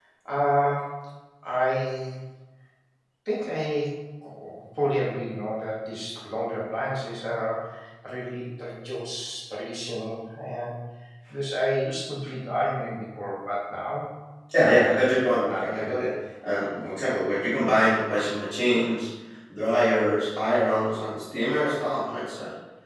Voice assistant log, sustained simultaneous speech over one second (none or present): none